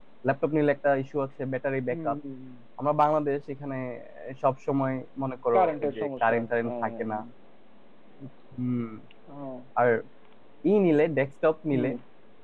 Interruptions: present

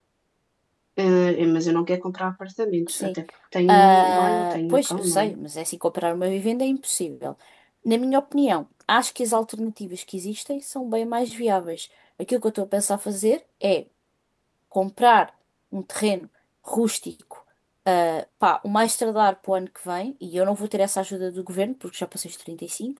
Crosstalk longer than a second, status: present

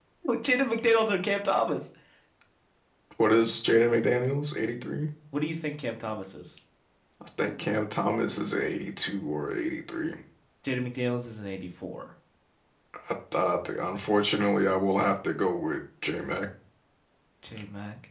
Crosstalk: none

